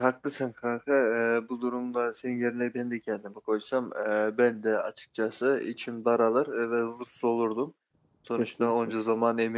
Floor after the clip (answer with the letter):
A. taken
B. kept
B